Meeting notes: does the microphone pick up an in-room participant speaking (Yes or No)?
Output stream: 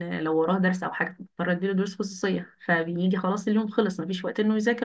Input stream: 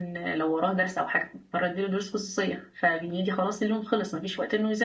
No